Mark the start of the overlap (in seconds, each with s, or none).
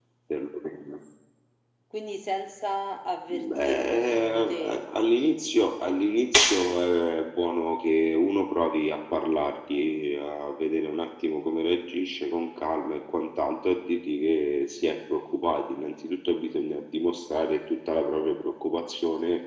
3.3 s